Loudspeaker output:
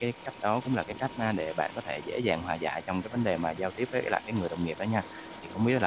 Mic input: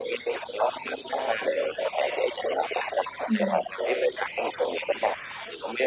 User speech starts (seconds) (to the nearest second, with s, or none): 3 s